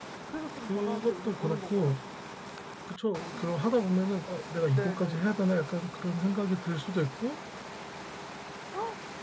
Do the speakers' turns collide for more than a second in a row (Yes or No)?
Yes